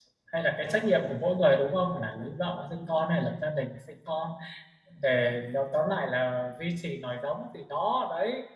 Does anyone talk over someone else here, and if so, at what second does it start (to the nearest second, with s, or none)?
none